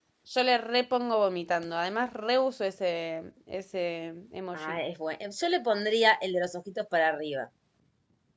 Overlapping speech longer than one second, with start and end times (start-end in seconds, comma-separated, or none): none